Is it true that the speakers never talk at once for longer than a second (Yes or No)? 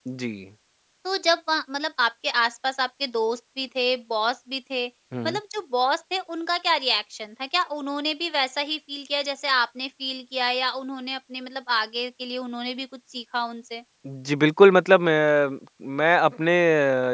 Yes